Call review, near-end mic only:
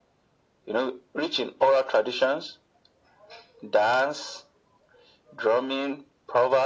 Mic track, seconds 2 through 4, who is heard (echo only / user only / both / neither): echo only